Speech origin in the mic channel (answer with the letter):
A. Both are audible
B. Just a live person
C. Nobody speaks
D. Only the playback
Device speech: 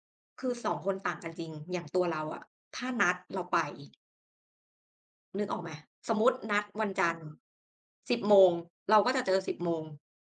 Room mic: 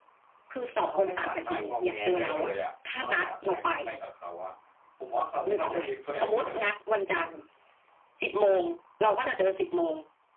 A